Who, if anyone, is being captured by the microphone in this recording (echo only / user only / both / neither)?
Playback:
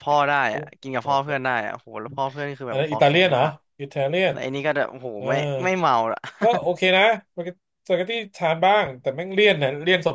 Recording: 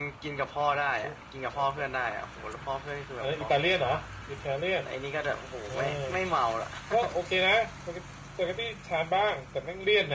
echo only